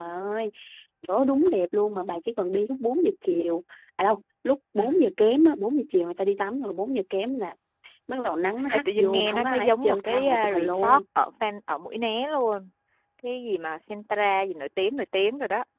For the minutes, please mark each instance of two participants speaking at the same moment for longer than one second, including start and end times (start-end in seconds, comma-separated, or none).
8.7-11.0